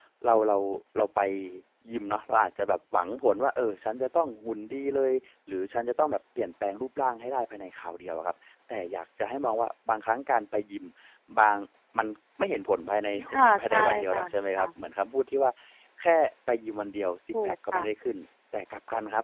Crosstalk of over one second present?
Yes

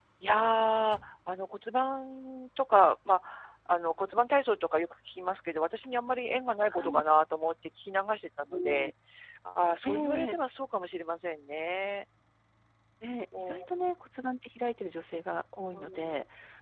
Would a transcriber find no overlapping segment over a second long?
Yes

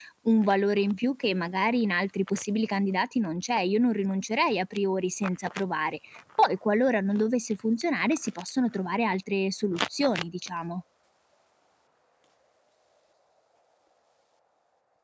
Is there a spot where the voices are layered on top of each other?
No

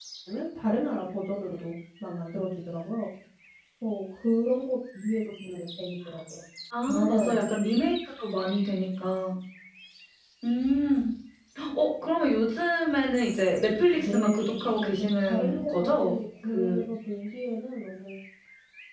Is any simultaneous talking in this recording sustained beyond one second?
Yes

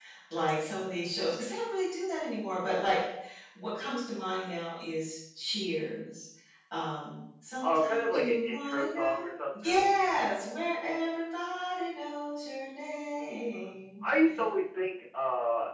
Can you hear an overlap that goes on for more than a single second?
Yes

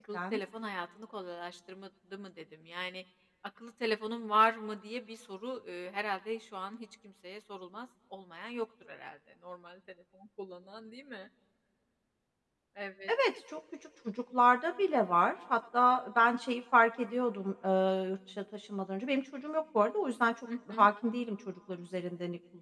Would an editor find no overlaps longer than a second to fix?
Yes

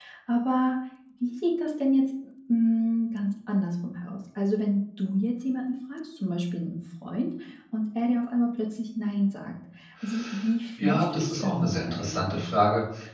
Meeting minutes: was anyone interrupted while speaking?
Yes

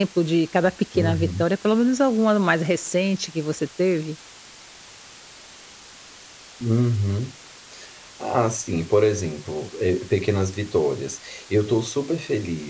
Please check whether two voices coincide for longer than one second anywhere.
No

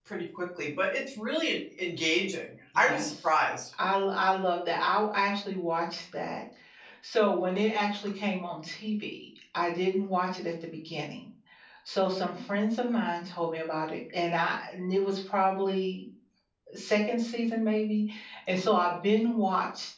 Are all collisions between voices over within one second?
Yes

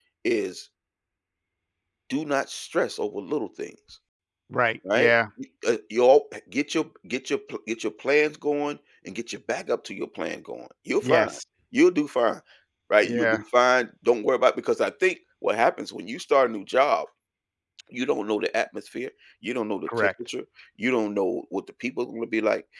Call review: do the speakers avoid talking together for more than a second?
Yes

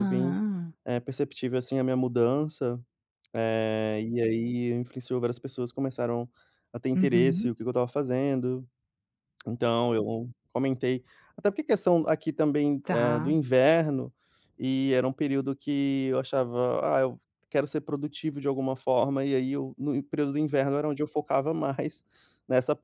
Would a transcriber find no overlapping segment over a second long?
Yes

